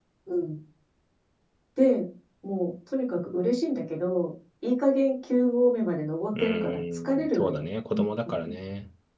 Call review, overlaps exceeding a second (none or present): present